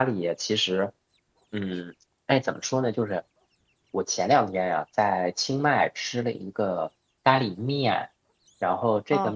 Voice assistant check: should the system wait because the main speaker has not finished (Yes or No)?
Yes